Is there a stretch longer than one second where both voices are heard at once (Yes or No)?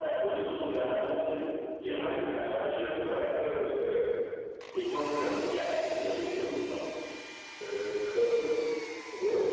Yes